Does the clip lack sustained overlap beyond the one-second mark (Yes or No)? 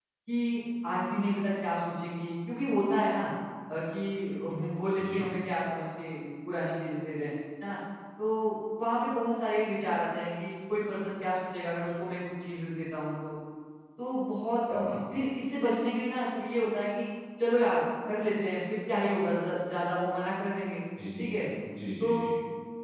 Yes